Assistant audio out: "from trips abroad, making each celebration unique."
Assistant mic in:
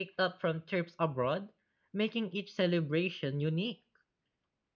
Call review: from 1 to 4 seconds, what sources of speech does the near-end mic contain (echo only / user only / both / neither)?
echo only